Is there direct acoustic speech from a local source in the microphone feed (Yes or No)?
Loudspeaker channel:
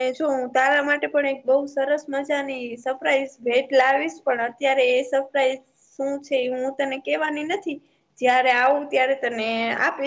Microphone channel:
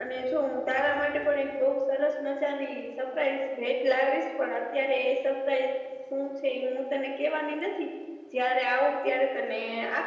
No